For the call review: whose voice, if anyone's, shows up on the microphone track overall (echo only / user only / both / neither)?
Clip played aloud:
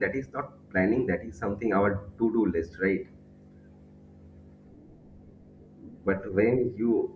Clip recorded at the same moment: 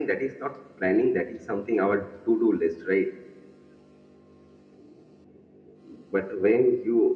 echo only